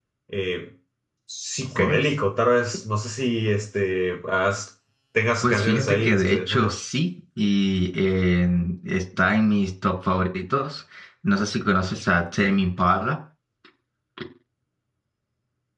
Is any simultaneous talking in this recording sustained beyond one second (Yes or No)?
Yes